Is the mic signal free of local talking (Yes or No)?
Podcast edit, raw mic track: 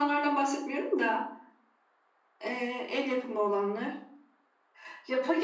Yes